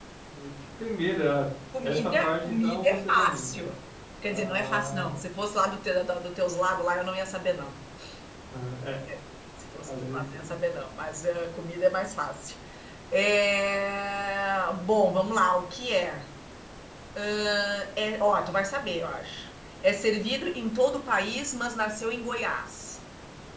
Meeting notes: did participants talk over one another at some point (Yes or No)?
Yes